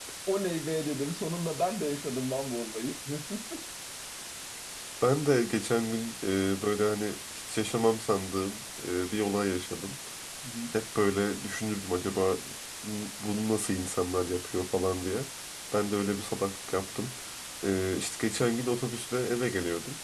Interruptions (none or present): none